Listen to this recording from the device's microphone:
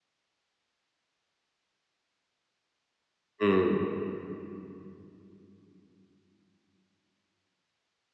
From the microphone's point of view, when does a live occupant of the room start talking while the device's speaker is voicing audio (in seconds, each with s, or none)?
3.4 s